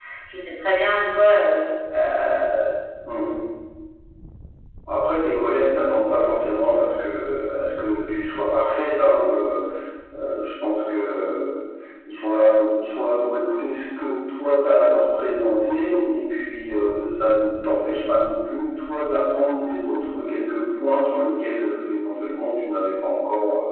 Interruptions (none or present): none